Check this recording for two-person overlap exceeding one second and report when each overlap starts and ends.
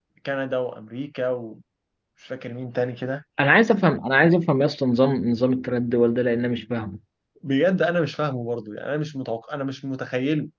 none

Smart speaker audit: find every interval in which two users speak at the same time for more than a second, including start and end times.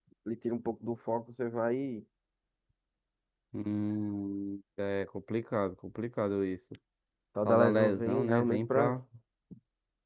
7.5-8.9

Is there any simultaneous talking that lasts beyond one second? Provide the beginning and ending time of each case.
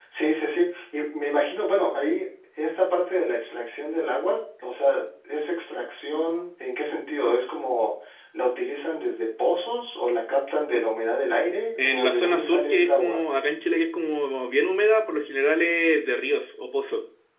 11.8-13.2

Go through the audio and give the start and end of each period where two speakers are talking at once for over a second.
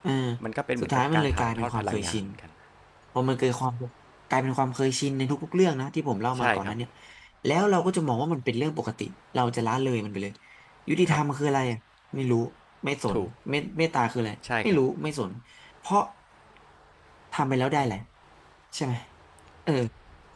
0.8-2.2

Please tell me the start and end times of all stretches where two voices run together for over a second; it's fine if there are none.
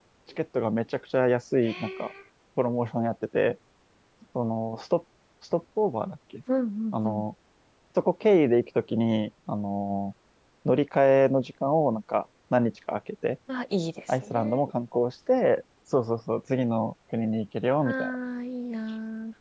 none

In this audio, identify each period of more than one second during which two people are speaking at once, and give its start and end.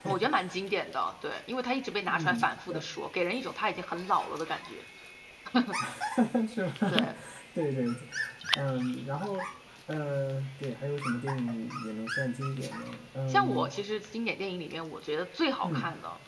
none

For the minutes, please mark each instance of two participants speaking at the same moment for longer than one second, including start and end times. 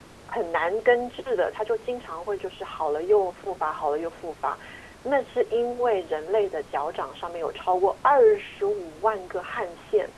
none

